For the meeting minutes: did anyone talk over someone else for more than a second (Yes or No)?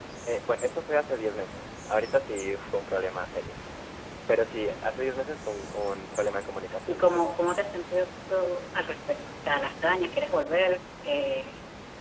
No